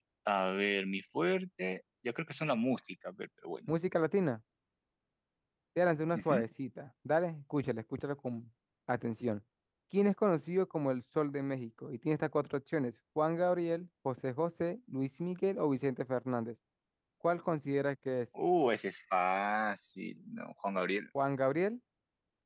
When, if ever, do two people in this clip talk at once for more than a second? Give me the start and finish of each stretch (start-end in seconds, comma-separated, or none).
none